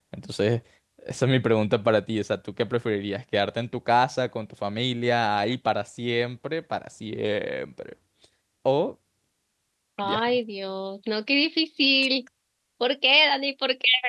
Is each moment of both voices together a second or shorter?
Yes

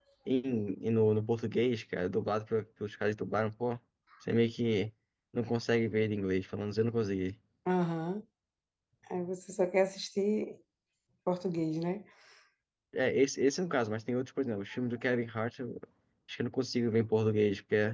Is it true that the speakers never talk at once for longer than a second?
Yes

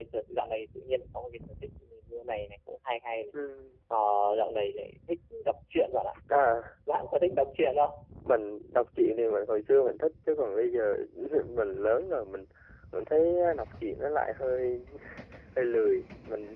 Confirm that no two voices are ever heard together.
Yes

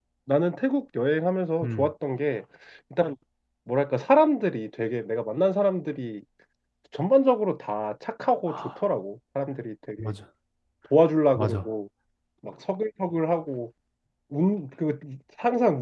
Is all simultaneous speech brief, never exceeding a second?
Yes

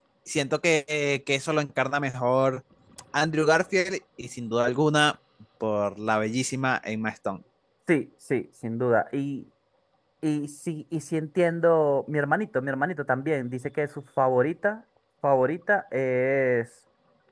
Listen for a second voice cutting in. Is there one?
No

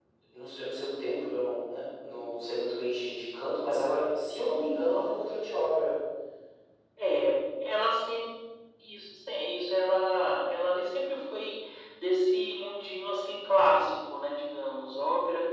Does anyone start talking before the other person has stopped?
No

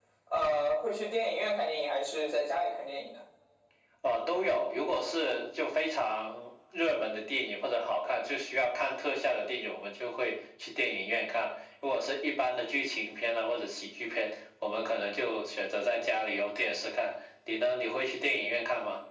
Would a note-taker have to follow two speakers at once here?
No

